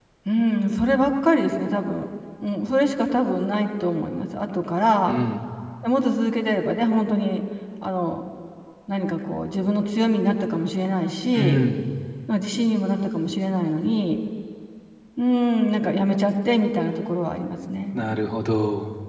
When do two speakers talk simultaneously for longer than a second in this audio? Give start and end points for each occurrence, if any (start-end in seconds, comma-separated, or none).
none